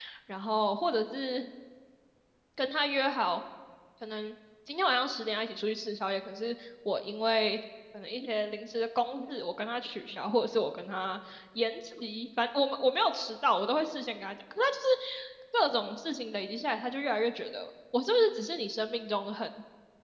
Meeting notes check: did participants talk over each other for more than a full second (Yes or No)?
No